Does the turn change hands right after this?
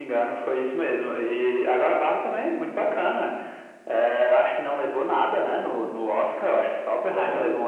No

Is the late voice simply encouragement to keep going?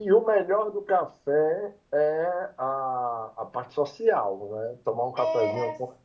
No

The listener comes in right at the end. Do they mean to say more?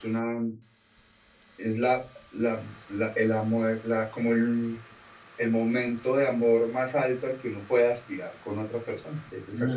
Yes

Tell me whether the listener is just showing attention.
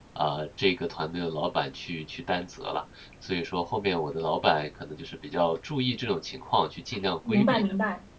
No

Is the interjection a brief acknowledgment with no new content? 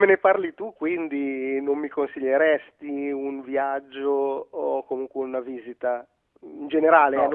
Yes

